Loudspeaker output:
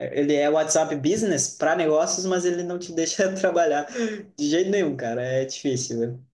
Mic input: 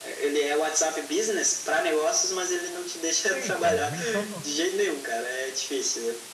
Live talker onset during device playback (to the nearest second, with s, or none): 3 s